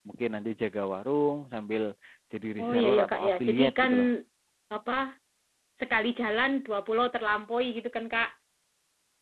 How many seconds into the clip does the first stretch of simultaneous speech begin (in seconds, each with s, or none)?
2.6 s